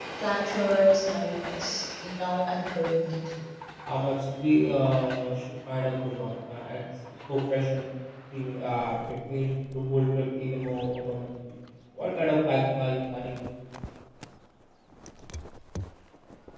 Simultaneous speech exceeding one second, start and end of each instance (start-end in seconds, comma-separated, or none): none